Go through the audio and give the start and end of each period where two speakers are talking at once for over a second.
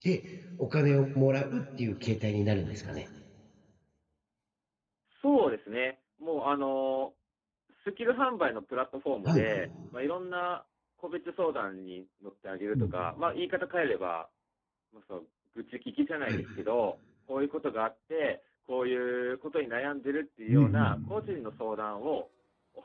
none

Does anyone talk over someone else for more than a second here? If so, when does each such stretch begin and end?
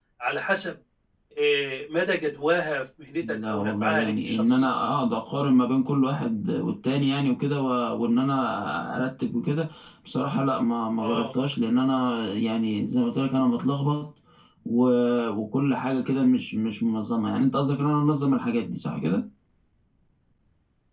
3.2-4.7

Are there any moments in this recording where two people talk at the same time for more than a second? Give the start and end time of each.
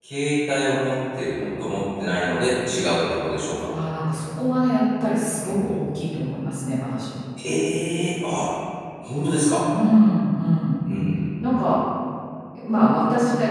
none

